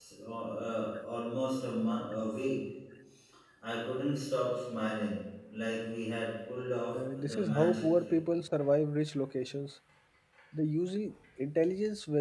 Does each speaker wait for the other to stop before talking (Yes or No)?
No